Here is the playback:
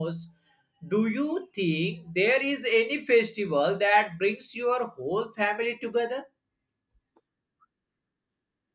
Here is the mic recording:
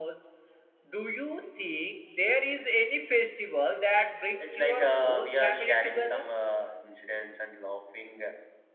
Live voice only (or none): it's like uh, we are sharing some uh, incidents and laughing